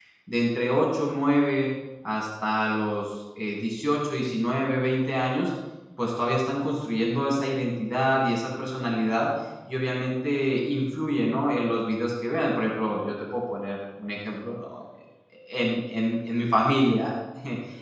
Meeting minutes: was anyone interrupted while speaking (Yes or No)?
No